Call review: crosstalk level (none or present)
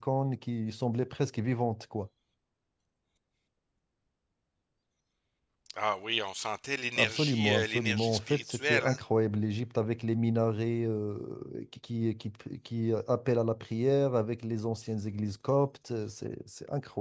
present